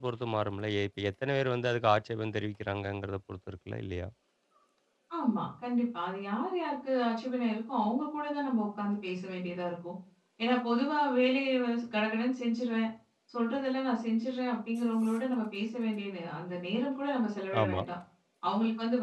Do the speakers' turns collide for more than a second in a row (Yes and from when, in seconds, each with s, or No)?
No